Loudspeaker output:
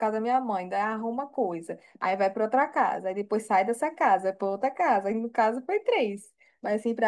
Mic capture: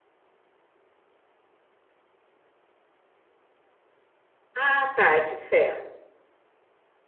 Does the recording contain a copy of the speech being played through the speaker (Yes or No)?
No